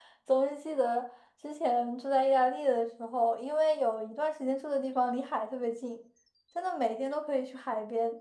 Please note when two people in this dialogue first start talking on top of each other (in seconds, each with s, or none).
none